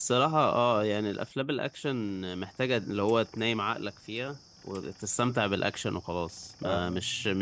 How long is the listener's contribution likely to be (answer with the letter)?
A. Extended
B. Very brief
B